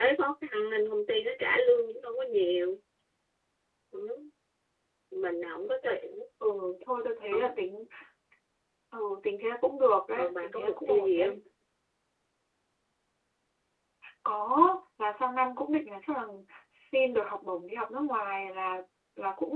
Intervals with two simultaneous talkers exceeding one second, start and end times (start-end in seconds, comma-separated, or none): 10.2-11.4